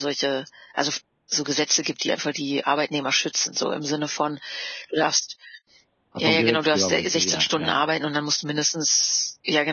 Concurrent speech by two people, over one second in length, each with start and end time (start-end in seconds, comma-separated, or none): 6.2-7.9